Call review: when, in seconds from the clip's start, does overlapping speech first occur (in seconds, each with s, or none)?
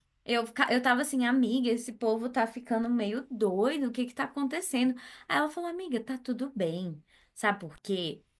none